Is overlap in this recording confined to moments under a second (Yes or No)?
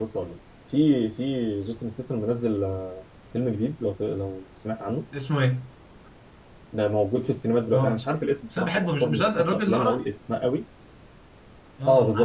No